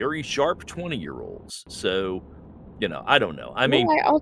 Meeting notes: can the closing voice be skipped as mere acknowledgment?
No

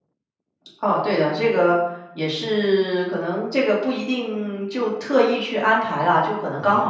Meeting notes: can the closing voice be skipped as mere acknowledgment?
Yes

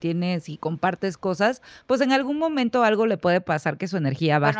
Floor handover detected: Yes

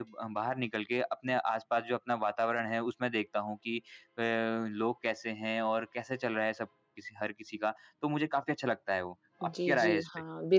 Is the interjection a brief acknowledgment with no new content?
No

